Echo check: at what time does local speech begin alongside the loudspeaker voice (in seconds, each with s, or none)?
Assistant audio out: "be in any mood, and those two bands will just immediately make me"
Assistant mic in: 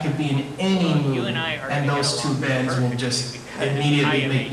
0.7 s